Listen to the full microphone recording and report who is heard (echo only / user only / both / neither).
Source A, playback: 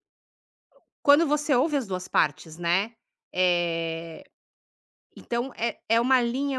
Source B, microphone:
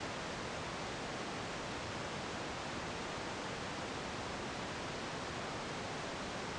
neither